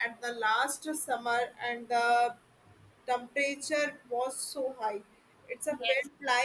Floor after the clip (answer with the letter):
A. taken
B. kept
B